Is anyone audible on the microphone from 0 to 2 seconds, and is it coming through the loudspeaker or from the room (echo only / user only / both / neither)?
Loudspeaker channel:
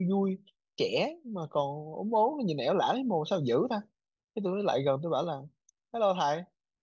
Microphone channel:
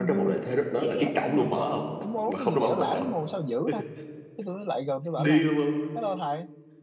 both